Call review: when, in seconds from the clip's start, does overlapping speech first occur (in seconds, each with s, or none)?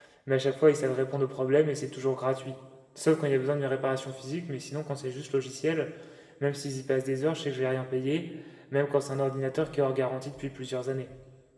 none